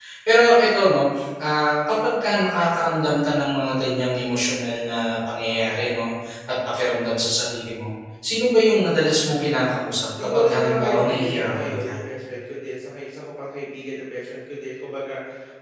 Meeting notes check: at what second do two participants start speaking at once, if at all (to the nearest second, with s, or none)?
10 s